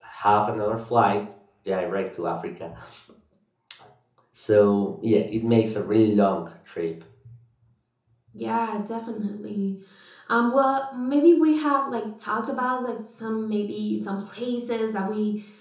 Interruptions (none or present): none